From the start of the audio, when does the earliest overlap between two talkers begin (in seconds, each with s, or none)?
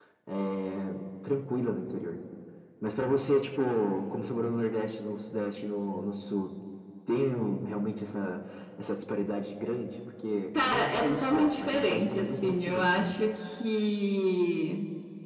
10.6 s